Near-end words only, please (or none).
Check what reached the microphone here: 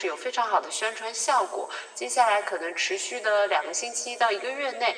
none